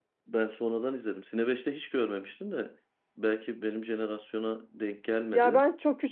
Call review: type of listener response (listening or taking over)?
taking over